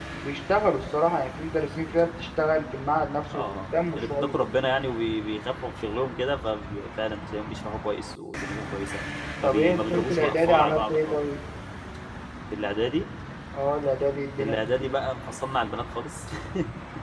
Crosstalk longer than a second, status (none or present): present